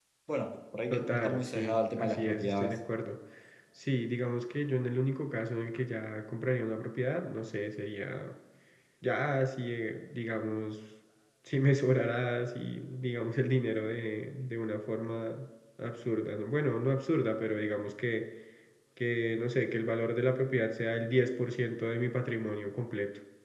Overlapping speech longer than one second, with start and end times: 0.9-2.7

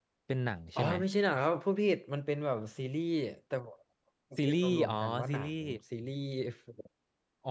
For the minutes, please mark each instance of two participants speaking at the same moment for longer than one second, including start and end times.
4.4-5.7

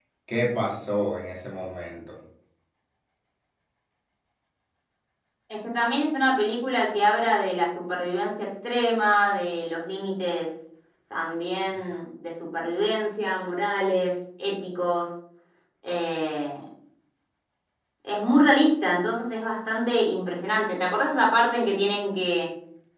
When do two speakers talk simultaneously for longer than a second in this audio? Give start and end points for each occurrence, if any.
none

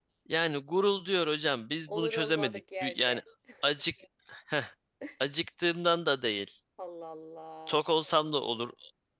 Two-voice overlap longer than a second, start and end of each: 1.9-3.2

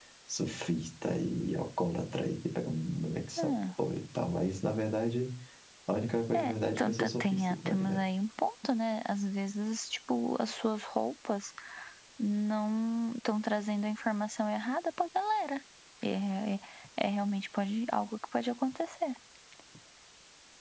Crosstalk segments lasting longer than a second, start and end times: 6.3-8.0

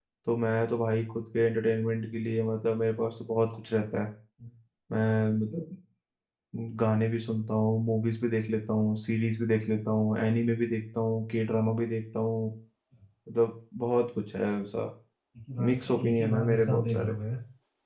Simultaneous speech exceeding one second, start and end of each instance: 15.7-17.1

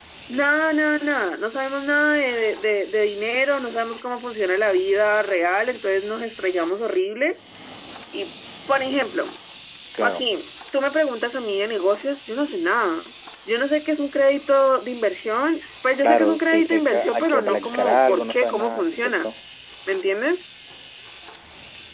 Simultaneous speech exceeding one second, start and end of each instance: 16.0-19.3

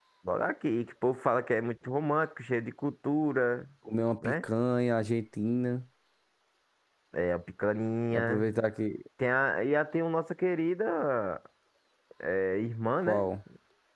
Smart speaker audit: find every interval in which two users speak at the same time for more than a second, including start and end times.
none

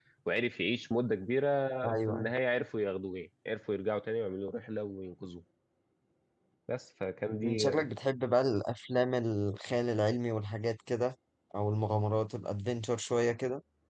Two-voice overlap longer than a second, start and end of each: none

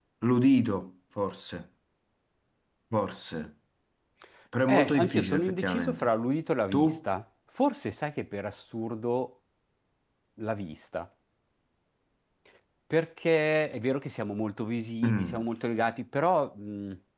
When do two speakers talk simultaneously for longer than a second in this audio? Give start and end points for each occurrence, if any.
4.7-6.1

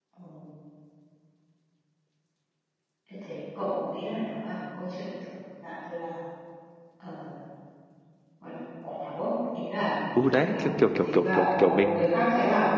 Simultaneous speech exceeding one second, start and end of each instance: 10.2-12.0

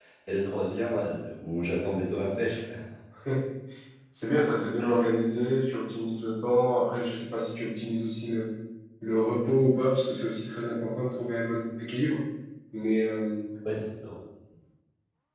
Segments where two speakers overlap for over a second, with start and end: none

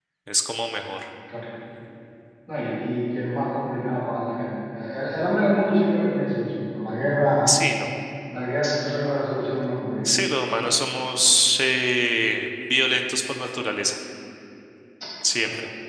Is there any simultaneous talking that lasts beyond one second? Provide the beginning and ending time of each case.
none

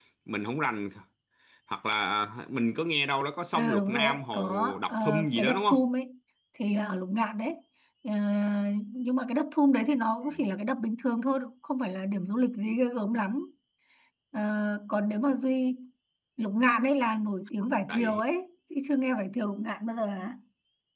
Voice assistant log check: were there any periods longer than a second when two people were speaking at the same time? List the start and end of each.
3.5-5.8

